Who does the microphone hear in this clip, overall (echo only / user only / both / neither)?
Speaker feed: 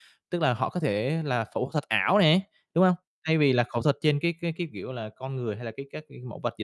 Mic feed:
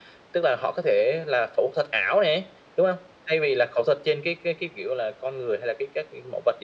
echo only